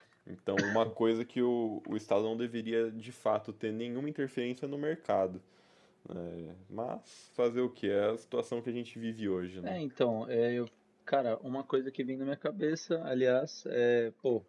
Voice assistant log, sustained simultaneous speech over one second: none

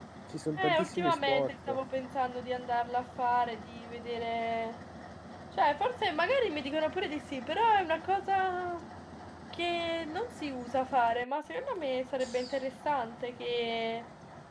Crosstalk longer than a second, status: present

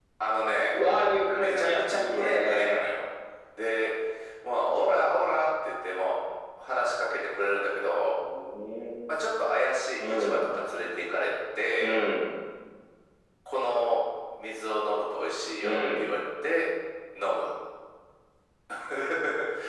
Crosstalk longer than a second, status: present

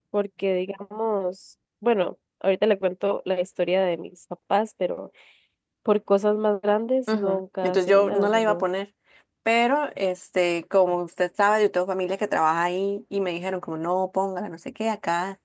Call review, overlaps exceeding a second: present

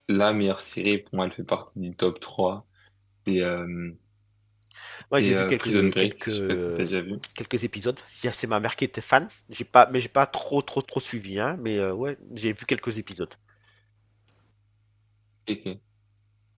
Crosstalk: present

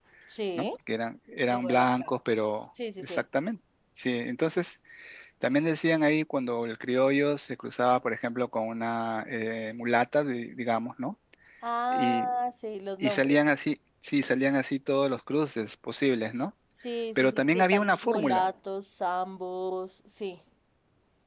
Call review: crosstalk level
present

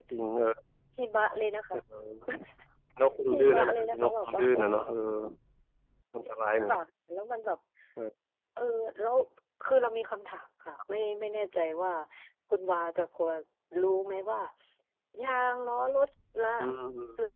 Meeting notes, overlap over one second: present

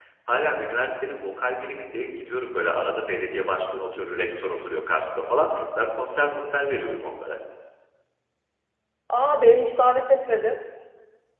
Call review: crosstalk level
none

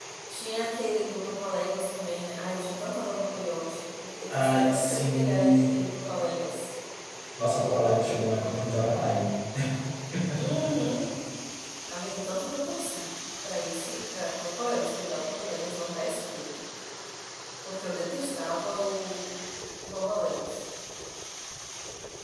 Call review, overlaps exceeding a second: present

